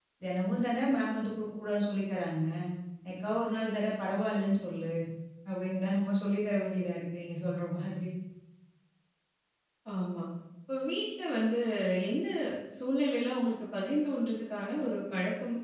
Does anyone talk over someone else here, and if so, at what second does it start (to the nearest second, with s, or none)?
none